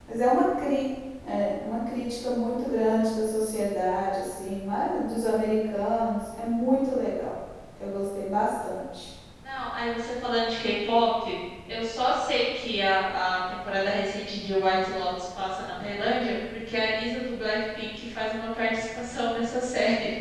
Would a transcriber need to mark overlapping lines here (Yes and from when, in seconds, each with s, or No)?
No